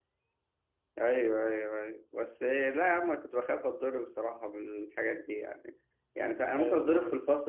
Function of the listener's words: listening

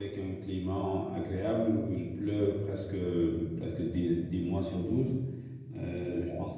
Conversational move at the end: listening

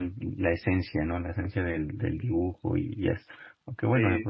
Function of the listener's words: listening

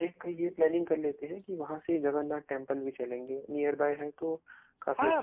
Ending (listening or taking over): taking over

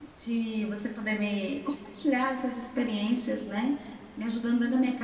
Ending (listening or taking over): listening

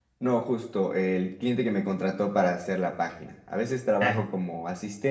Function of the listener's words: listening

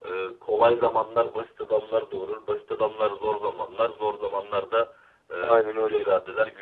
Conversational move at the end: listening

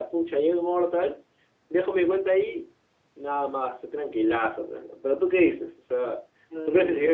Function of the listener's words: taking over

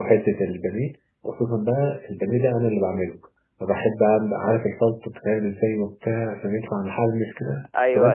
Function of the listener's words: listening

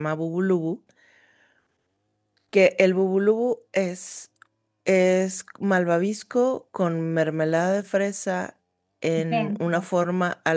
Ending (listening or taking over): listening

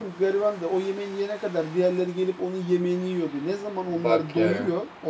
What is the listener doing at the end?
listening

